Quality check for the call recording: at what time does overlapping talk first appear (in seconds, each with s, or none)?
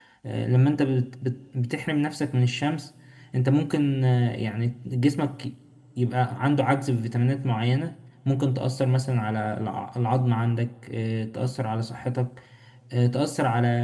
none